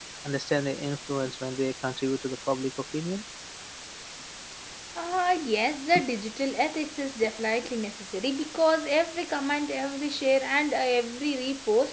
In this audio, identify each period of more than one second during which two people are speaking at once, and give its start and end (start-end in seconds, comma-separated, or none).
none